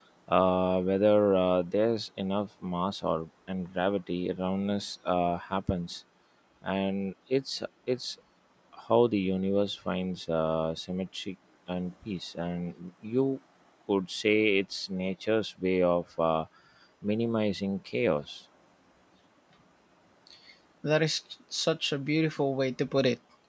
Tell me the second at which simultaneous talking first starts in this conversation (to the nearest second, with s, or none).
none